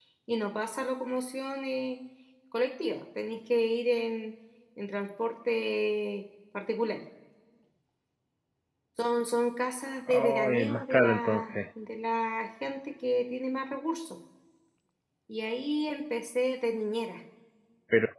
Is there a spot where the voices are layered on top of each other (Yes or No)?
Yes